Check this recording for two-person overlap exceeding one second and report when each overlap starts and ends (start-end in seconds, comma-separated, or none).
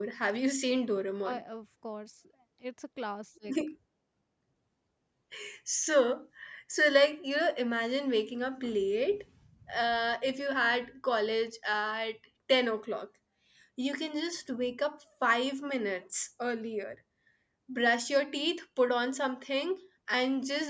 none